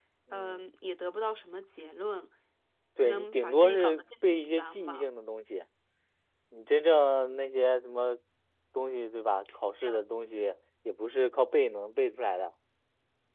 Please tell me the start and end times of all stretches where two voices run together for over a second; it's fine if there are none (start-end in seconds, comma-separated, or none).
3.0-5.0